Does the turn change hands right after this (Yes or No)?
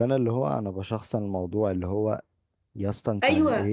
No